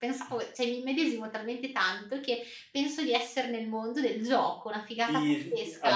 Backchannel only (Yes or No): No